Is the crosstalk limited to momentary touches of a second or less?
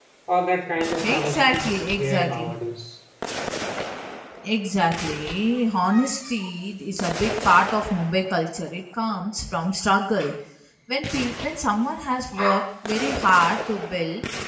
No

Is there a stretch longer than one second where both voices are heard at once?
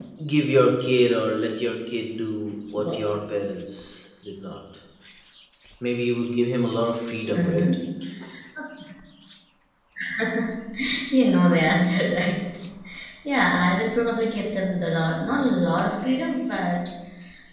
No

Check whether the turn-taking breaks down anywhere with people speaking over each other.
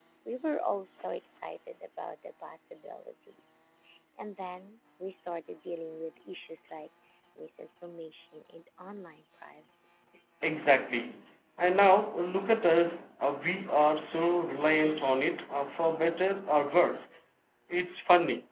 No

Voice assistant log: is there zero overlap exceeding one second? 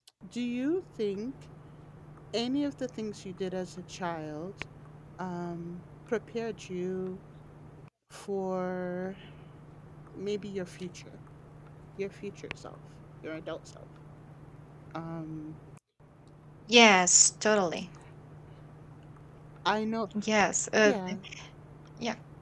Yes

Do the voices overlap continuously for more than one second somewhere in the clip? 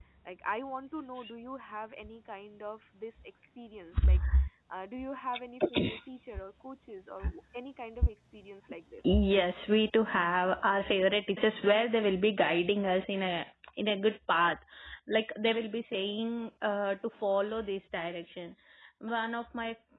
No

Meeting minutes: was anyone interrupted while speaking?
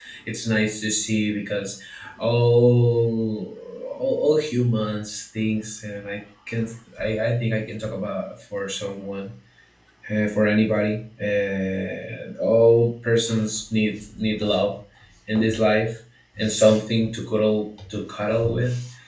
No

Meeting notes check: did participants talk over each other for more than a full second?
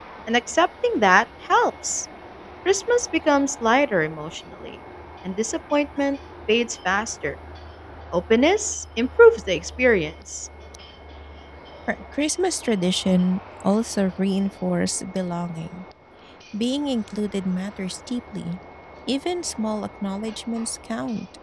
No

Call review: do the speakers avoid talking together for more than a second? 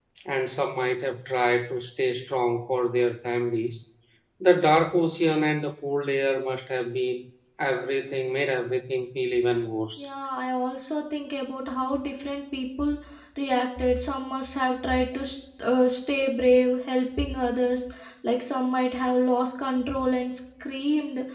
Yes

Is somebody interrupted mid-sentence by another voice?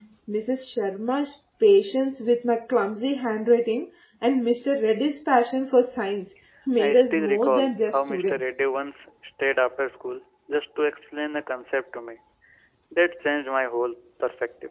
Yes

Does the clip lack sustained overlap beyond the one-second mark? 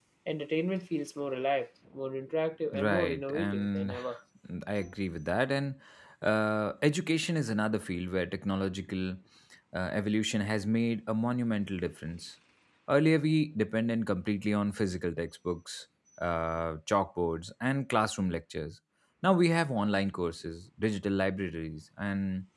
No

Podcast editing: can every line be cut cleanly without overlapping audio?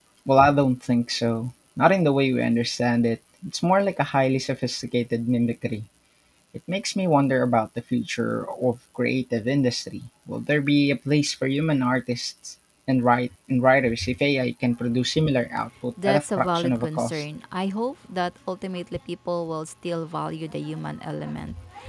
No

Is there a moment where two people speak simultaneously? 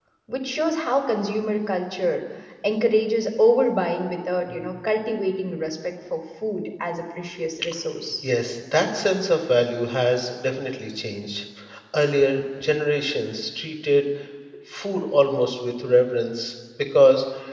No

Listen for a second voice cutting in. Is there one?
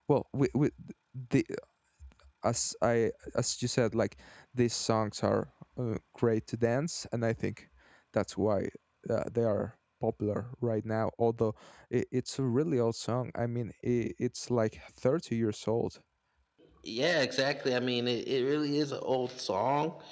No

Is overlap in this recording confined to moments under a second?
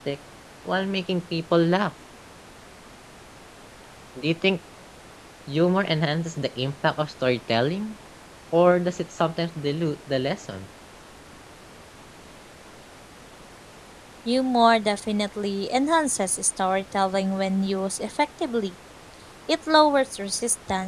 Yes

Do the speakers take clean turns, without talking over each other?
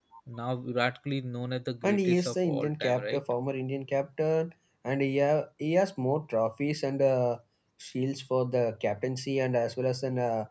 No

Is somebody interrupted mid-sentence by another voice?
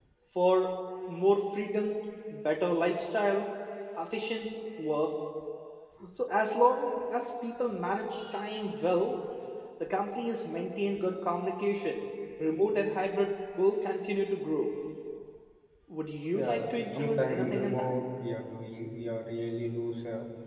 Yes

